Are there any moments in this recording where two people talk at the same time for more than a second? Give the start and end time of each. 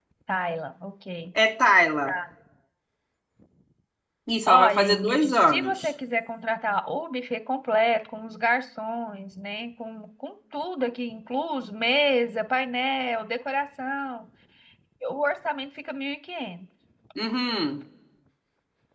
4.5-5.9

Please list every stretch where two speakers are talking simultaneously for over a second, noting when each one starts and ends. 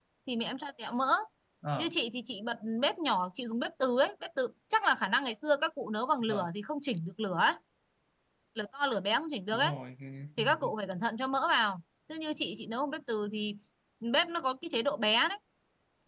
none

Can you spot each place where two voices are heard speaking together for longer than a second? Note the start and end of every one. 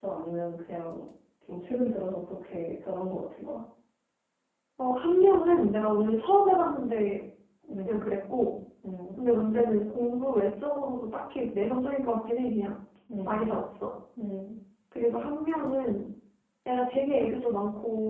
none

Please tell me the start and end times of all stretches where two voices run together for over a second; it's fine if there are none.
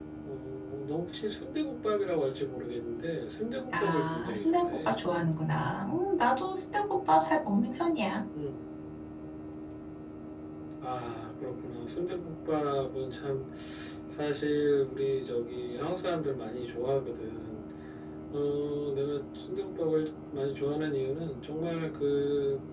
3.7-5.0

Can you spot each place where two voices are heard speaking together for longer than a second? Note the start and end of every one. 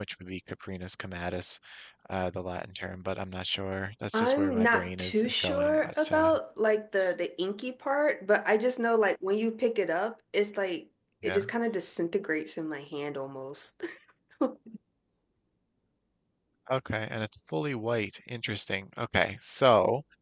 4.2-6.3

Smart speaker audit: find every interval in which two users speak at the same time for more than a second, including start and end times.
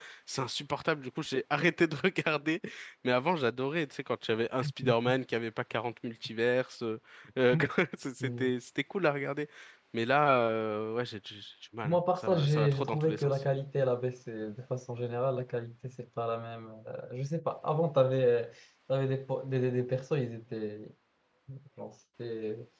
11.8-13.3

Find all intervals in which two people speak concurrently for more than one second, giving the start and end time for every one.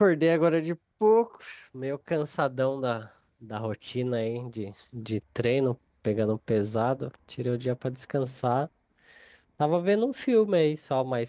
none

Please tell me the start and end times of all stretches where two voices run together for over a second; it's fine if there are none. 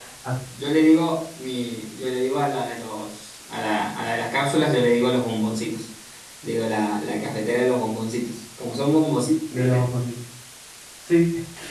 none

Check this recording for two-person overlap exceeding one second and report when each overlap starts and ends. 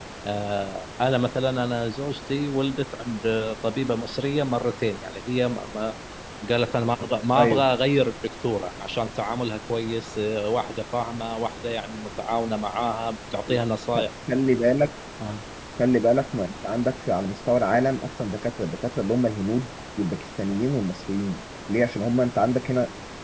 none

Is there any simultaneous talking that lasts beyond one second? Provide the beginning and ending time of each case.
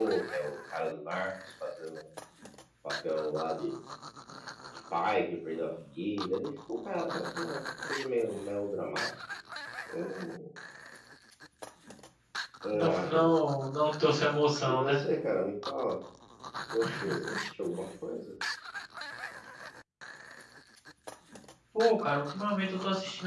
none

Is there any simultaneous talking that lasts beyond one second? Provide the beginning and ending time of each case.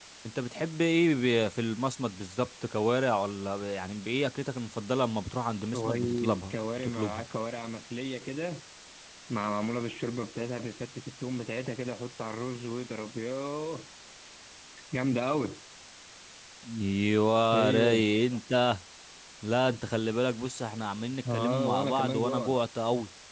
5.7-7.2, 21.3-22.6

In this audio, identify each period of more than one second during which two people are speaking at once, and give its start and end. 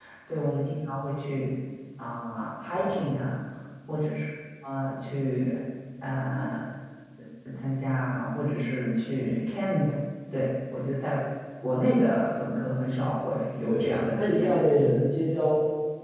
13.7-15.0

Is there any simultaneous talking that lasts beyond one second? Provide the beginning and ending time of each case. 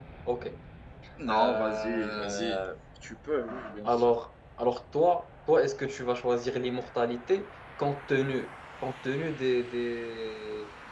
1.3-2.6

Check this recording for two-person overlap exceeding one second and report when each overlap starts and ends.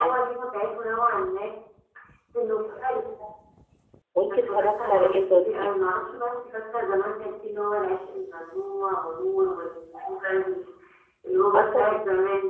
4.3-5.7

